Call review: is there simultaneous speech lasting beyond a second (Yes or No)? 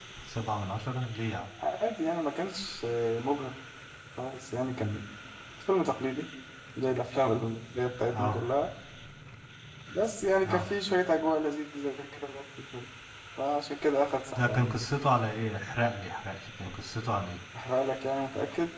No